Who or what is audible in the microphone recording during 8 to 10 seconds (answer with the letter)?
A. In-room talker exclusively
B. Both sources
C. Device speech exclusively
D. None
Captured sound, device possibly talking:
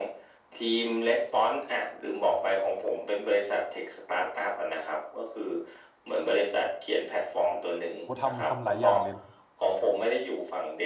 B